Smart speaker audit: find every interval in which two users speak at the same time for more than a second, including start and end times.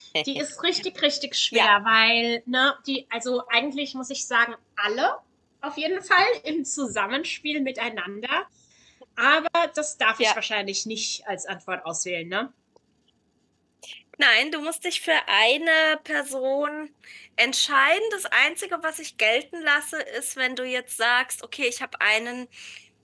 none

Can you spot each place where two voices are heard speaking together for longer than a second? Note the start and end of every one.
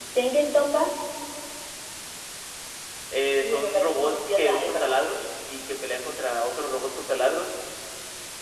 3.4-5.2

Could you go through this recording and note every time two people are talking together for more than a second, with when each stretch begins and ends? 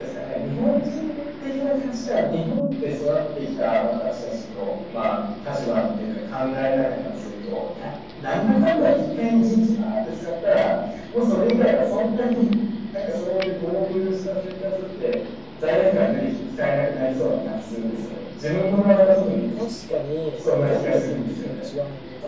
20.4-21.6

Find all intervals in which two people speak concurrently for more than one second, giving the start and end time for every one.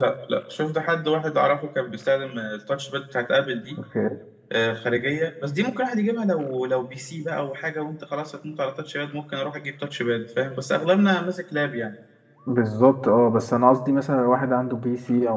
none

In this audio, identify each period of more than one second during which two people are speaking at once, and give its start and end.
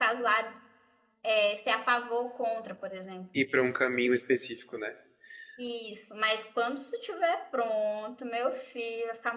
none

